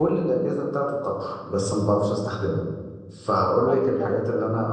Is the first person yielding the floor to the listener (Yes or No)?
No